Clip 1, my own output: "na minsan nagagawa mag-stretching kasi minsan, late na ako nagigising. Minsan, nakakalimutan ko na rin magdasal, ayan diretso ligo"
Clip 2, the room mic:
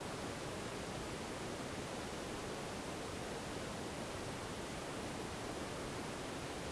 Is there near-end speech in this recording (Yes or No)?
No